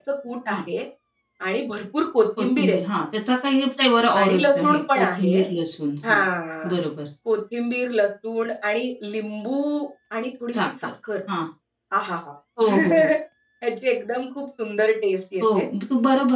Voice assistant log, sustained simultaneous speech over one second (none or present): present